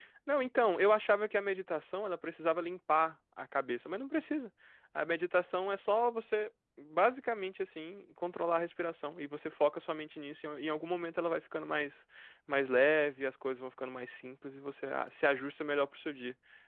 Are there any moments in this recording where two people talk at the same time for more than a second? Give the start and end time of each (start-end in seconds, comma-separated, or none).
none